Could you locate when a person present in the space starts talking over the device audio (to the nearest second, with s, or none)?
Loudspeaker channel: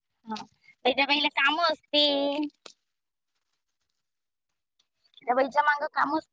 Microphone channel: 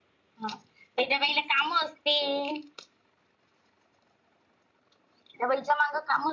none